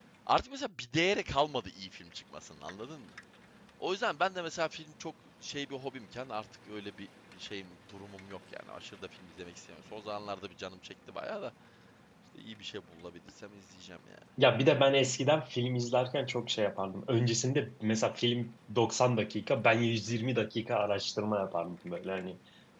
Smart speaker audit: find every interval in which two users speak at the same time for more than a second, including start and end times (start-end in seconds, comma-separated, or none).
none